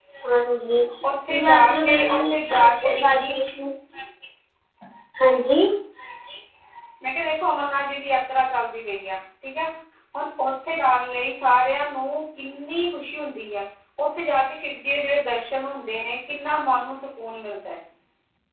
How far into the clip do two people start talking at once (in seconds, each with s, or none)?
1.0 s